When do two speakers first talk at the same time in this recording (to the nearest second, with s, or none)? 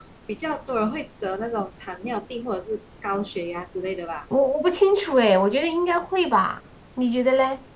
none